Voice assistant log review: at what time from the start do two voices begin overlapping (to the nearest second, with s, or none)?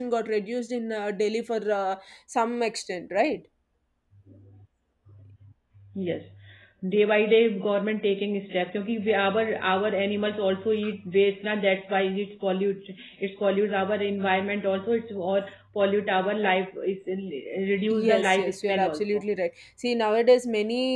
18 s